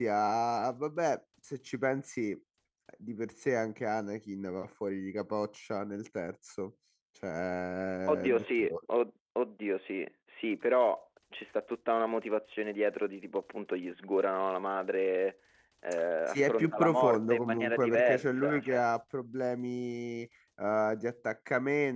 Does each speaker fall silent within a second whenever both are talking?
No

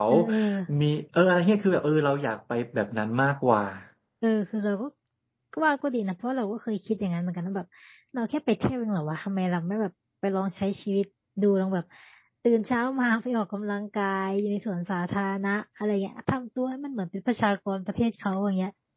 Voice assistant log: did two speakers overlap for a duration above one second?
No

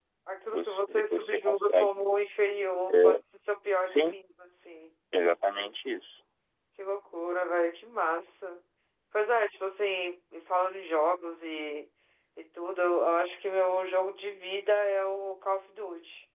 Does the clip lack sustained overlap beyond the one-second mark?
No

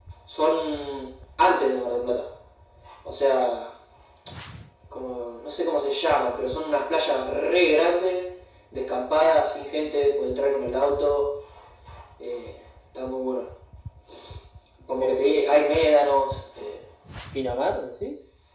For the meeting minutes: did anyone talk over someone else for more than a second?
No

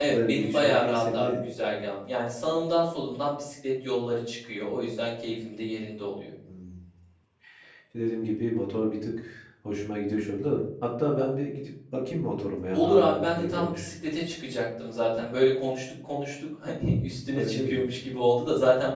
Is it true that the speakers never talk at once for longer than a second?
No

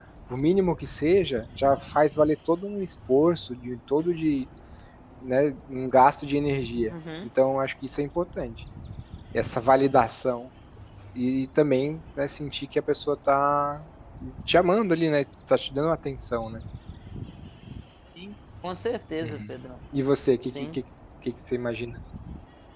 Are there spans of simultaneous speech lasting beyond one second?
No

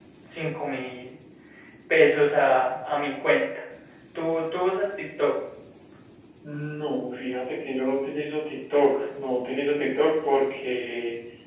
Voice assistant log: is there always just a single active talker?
Yes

